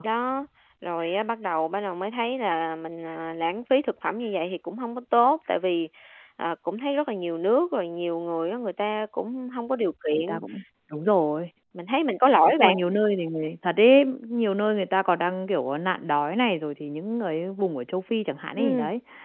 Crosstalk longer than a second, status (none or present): none